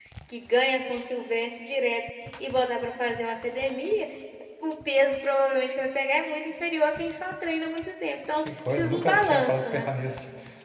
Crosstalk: present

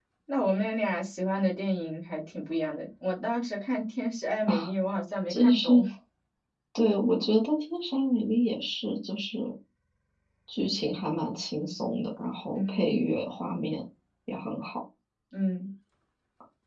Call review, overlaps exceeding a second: none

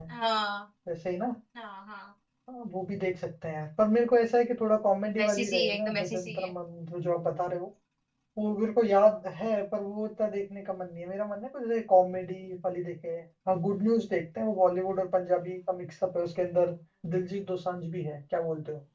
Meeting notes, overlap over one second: present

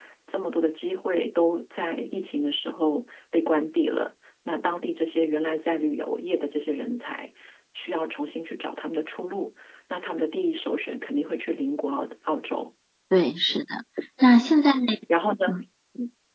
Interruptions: none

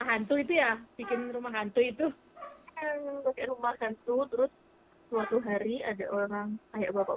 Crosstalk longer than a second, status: none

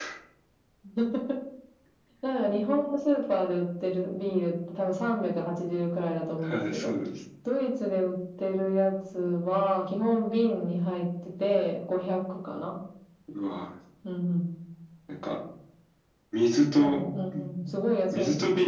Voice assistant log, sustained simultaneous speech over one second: none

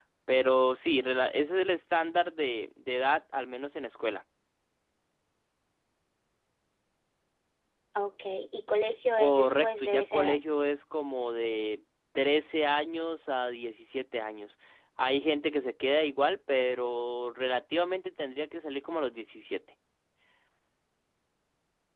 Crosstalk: present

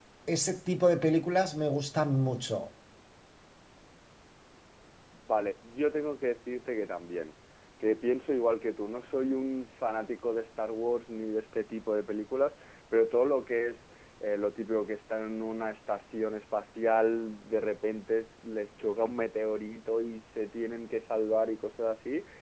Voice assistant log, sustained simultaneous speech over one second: none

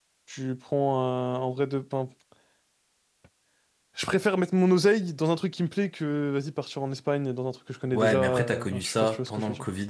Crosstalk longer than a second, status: present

